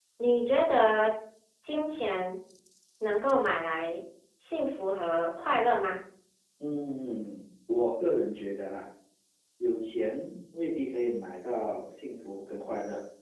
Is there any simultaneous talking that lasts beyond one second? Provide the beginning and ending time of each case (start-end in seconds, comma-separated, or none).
none